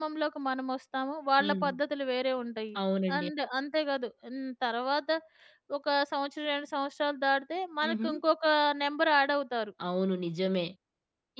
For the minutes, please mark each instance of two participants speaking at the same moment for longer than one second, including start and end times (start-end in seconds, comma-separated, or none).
none